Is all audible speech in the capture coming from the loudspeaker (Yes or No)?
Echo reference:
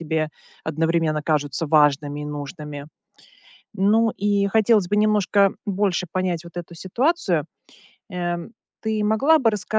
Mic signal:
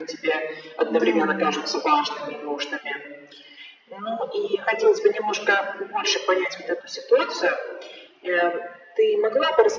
No